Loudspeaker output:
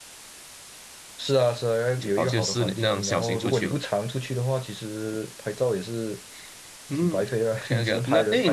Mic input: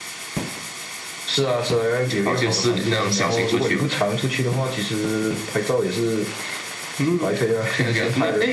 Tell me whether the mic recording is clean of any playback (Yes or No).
No